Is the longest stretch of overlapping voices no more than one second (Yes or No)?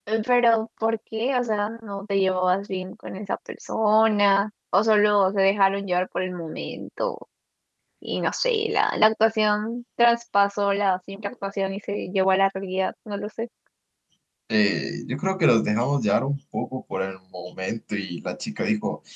Yes